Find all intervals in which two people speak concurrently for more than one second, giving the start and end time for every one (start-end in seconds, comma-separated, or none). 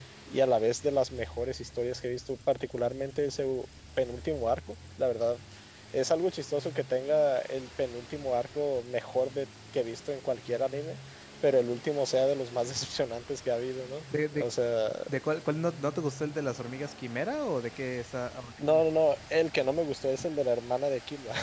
none